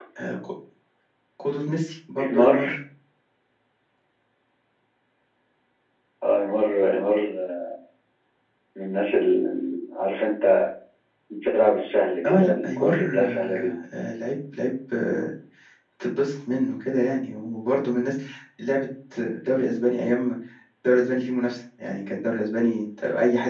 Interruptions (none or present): present